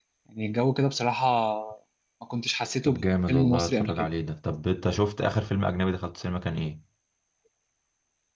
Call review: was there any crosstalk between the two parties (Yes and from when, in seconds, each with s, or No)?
Yes, from 2.9 s